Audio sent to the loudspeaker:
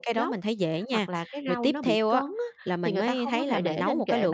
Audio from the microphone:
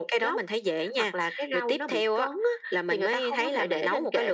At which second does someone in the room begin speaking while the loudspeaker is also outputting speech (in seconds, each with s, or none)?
none